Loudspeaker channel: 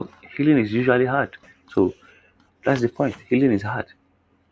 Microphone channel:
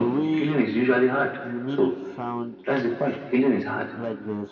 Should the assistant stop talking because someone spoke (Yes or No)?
Yes